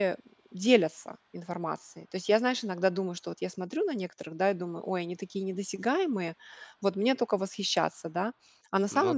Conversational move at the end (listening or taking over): listening